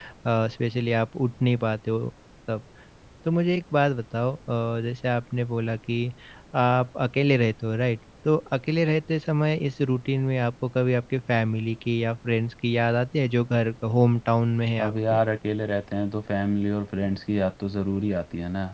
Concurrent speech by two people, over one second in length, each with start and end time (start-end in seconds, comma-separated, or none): none